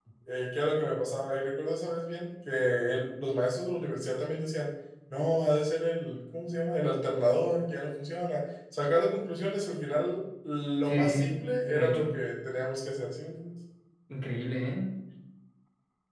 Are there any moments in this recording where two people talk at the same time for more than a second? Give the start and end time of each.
10.9-12.1

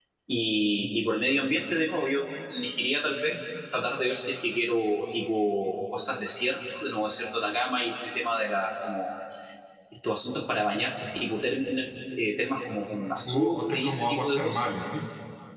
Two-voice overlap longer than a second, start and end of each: 13.2-14.7

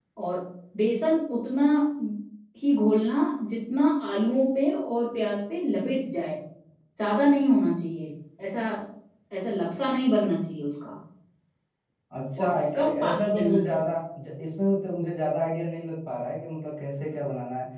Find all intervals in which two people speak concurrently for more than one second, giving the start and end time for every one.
12.4-13.9

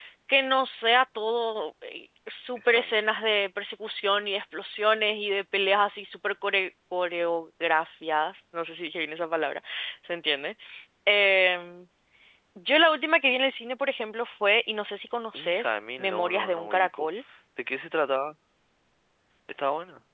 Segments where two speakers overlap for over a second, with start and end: 15.3-17.1

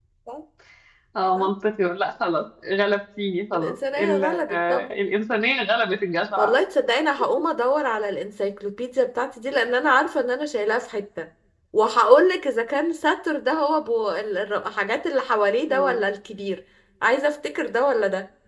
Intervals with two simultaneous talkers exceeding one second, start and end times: 3.5-4.9

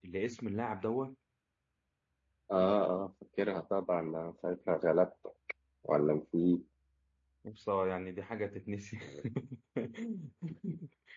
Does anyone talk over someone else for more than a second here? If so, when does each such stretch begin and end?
none

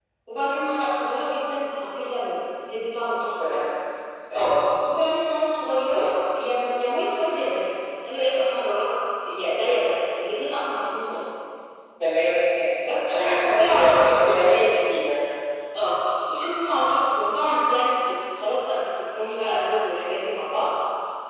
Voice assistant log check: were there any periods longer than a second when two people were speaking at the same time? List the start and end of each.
13.1-14.5

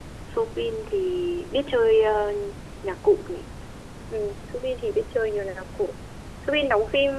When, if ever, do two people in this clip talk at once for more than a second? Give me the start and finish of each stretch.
none

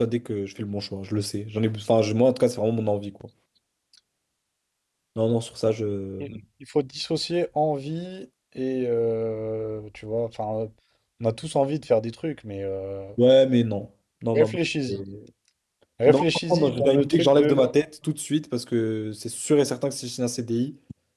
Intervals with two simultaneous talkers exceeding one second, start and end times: 16.1-17.6

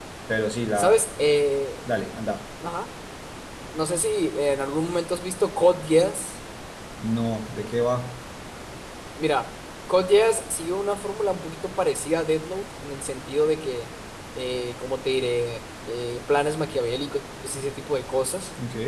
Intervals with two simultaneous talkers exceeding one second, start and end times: none

